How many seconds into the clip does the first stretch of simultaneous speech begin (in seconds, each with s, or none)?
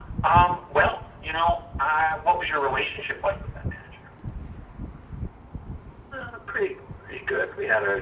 none